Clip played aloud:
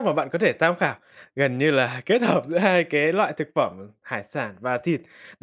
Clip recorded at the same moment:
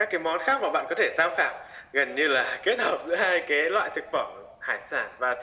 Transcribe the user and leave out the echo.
none

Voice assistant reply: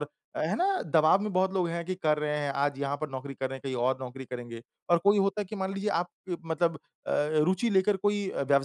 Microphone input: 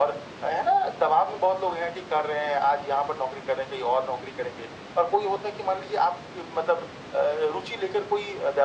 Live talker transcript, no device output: none

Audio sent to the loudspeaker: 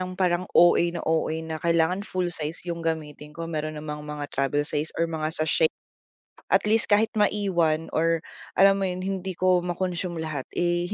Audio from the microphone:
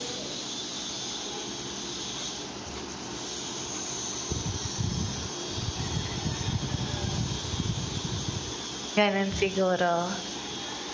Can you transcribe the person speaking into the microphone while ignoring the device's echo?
Gano'n siguro.

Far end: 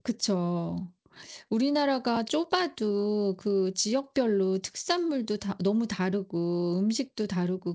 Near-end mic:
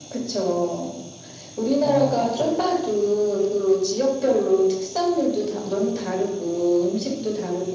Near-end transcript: 어 그쵸.

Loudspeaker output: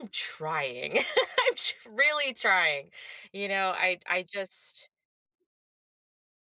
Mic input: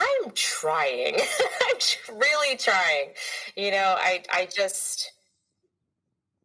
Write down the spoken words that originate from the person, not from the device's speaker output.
none

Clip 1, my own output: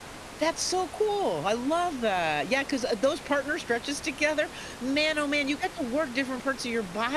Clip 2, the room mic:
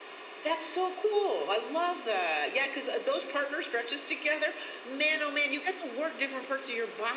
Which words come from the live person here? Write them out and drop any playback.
none

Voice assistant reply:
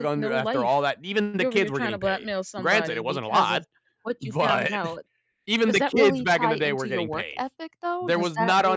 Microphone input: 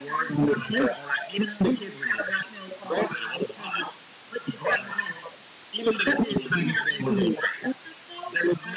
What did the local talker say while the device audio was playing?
none

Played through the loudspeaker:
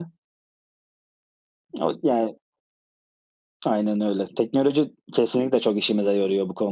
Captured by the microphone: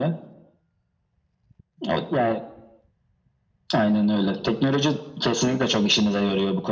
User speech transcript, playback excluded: none

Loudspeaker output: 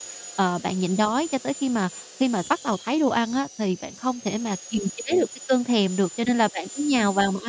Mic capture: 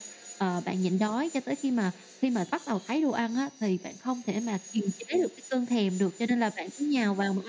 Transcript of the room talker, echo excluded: none

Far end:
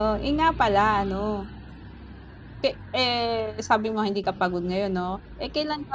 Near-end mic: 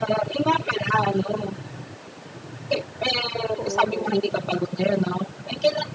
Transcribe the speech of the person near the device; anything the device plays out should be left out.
Oo.

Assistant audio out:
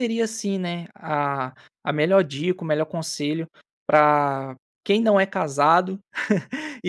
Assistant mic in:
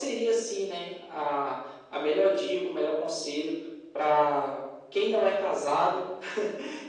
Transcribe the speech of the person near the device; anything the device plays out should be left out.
none

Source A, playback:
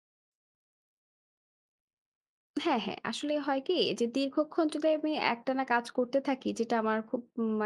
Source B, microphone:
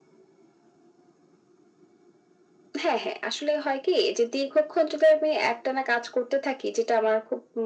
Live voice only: none

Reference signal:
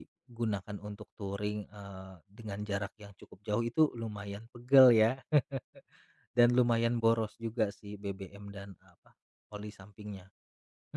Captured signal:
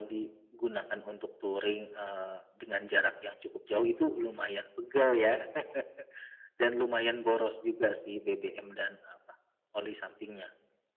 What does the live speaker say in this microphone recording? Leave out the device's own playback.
none

